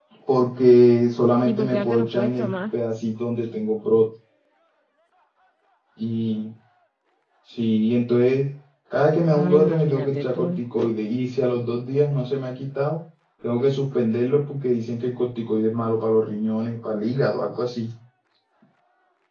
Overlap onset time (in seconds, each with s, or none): 1.4 s